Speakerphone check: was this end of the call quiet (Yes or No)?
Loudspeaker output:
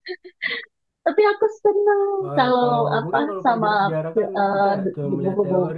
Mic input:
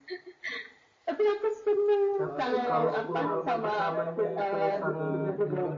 No